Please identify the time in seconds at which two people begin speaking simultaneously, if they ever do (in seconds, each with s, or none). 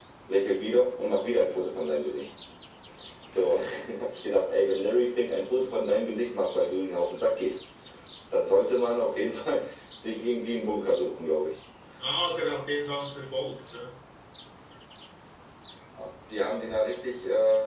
none